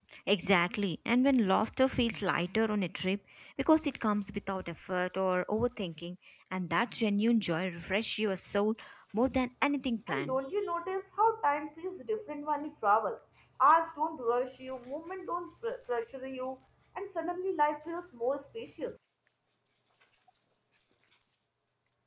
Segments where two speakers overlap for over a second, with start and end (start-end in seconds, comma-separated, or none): none